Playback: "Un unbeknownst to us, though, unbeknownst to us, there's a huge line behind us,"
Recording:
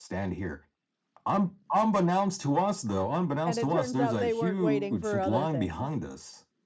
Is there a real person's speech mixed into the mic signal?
Yes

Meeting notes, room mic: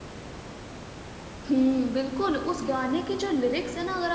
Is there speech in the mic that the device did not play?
Yes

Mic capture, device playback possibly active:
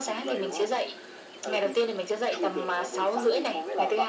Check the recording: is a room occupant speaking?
Yes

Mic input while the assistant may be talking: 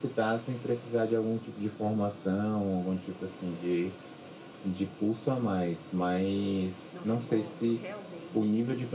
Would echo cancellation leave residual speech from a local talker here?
Yes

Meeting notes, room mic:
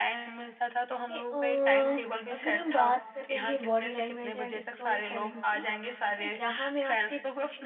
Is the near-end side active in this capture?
Yes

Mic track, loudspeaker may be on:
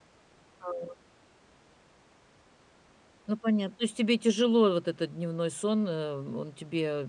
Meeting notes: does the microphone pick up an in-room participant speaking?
Yes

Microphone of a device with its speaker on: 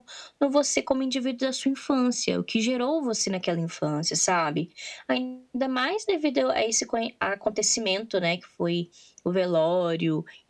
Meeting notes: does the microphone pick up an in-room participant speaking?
No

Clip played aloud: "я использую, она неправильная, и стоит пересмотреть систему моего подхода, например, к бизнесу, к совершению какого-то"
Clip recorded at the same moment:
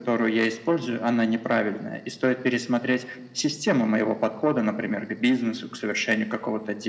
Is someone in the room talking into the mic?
No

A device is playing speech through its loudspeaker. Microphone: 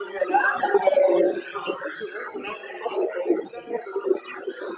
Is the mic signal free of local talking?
Yes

